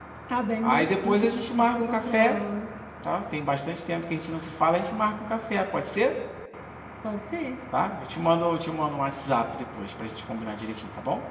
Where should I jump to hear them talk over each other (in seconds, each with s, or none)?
0.6 s